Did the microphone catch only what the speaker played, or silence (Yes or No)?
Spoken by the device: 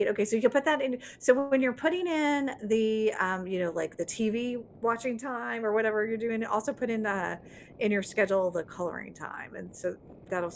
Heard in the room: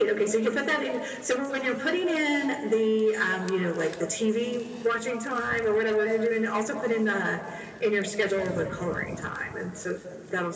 Yes